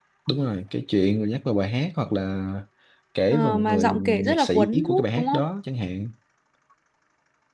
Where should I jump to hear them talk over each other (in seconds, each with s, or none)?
3.3 s